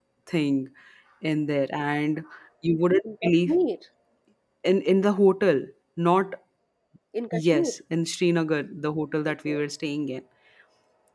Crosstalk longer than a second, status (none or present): none